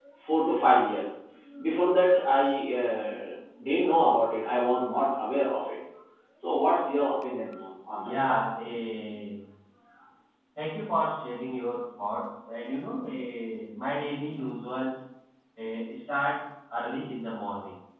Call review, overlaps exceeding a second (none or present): none